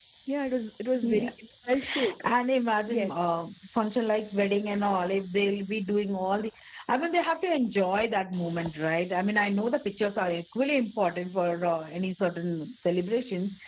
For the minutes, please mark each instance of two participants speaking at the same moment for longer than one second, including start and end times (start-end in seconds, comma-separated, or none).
none